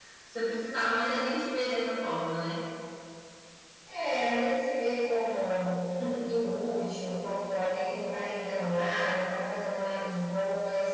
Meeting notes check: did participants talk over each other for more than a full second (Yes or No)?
No